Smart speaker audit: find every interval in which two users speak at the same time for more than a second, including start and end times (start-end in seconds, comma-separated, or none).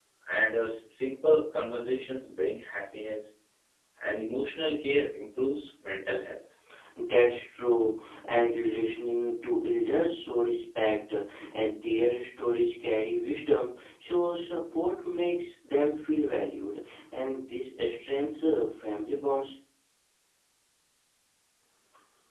none